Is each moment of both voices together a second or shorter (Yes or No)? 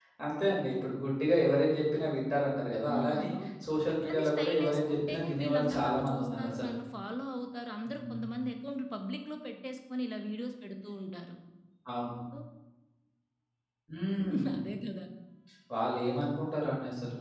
No